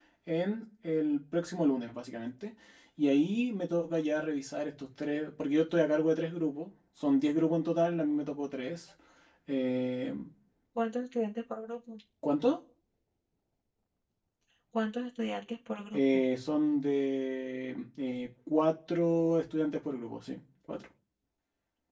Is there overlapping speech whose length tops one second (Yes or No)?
No